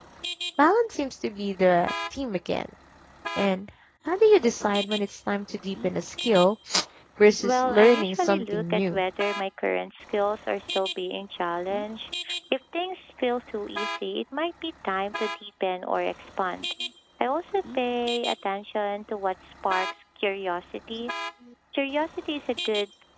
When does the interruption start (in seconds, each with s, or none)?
7.4 s